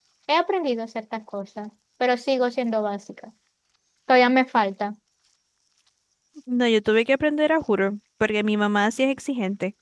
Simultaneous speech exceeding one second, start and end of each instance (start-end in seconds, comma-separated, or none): none